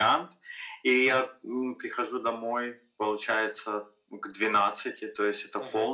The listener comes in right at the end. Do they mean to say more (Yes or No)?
No